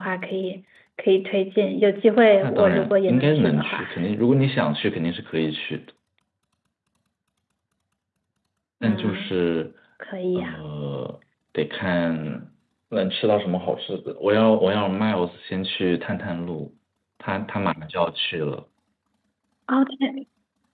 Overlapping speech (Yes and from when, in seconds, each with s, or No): Yes, from 2.4 s